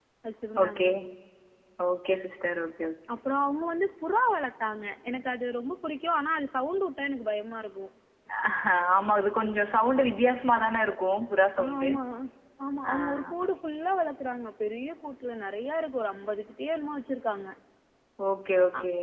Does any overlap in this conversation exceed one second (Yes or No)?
No